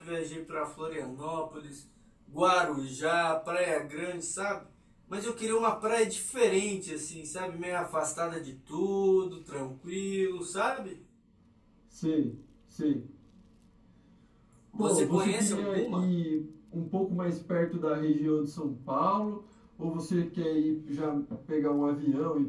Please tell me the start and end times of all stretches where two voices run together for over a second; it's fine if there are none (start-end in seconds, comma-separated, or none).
14.8-16.1